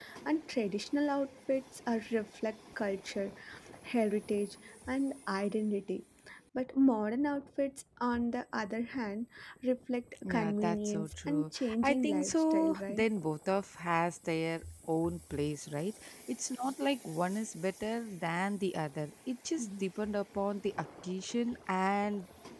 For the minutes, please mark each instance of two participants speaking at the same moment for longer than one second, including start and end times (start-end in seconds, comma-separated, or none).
10.2-13.1